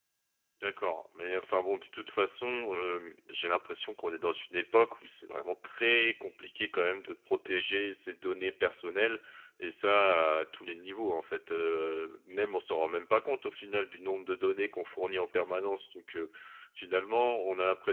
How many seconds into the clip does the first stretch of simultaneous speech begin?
none

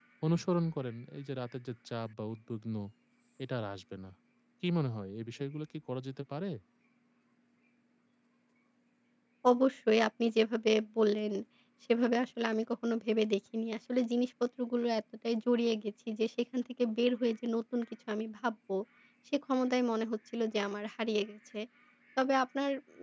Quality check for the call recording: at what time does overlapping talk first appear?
none

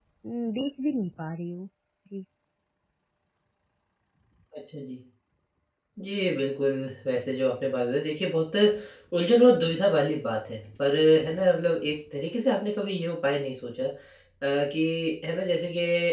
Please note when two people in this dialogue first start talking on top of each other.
none

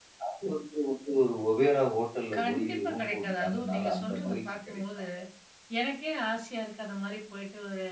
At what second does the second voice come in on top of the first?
2.3 s

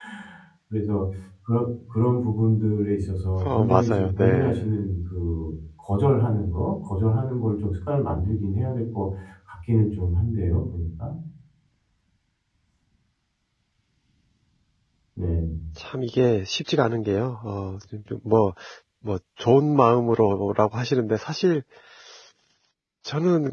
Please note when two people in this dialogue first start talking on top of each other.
3.4 s

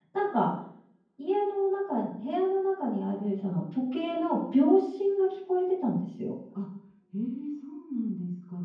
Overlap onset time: none

